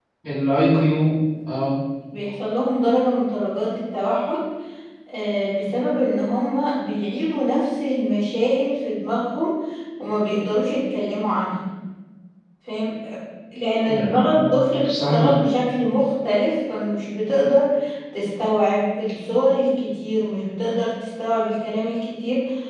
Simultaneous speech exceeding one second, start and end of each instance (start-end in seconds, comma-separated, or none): 13.9-15.1